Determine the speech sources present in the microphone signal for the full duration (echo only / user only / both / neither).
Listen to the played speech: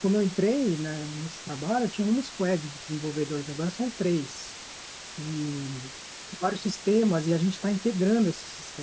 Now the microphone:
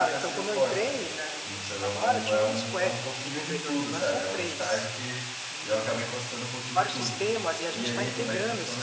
both